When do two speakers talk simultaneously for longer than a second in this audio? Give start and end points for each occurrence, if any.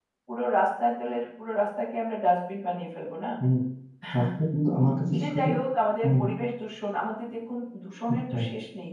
none

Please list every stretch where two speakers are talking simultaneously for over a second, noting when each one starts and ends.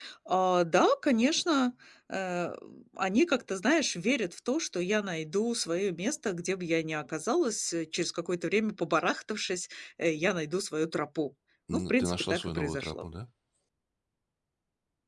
11.7-13.0

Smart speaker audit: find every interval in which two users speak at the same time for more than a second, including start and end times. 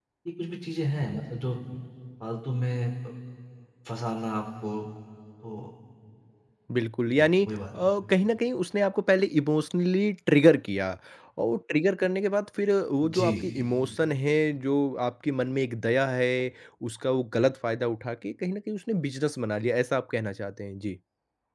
none

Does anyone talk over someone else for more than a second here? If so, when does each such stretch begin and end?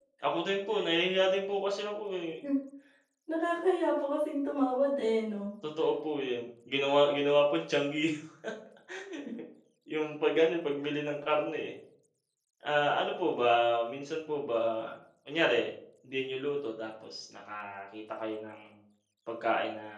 none

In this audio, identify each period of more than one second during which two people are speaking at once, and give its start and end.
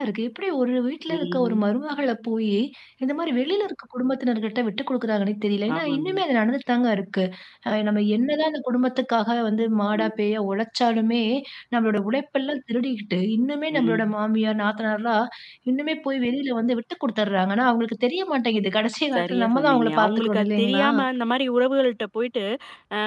19.1-20.9

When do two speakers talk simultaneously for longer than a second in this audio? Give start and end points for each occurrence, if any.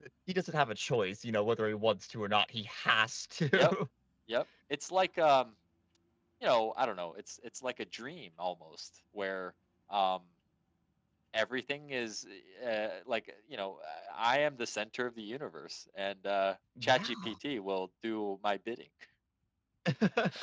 none

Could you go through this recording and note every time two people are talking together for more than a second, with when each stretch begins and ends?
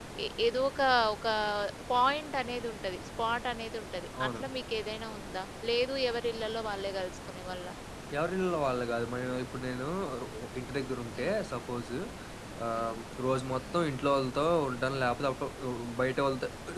none

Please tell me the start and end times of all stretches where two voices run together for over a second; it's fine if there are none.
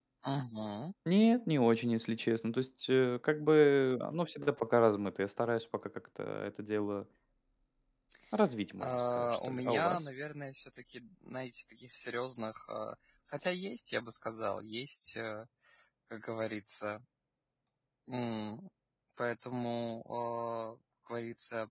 8.8-10.1

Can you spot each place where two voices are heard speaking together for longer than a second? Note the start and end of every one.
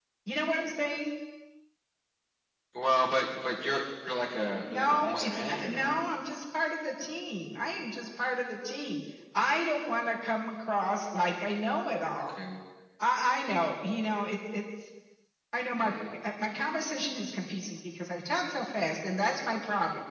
4.7-6.0

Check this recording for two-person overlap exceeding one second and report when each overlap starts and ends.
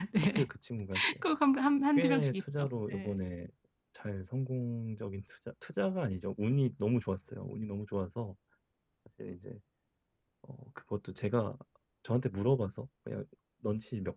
2.0-3.2

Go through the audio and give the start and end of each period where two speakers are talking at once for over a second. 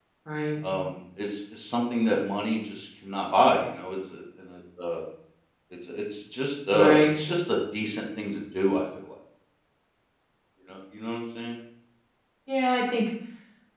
none

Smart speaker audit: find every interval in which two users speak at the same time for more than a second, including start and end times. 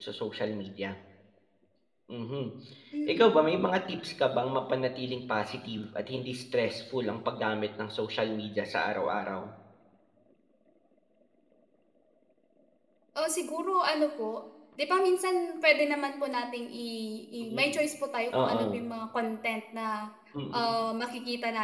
none

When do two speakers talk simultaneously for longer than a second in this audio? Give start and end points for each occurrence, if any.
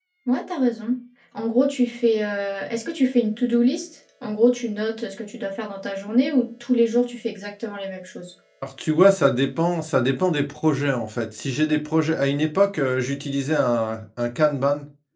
none

